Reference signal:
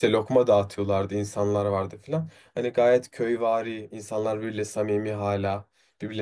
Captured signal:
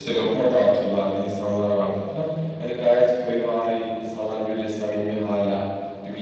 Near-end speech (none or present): none